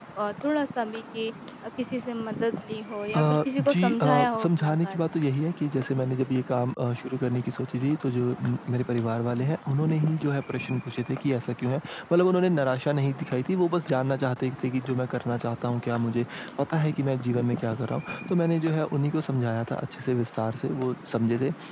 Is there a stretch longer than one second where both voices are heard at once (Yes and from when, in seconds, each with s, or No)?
Yes, from 3.1 s